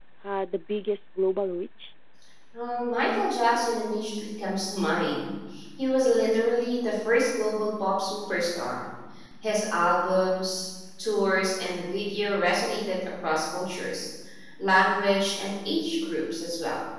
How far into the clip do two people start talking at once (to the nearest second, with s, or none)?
none